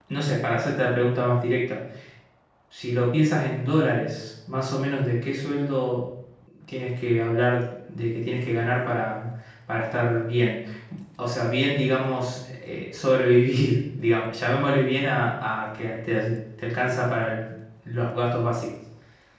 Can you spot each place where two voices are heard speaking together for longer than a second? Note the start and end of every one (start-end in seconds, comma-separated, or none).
none